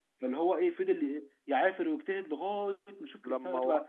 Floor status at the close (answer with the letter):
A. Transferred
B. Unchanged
B